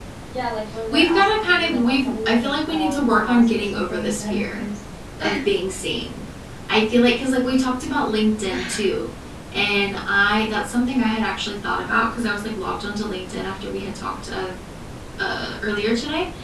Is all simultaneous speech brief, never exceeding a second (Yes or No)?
No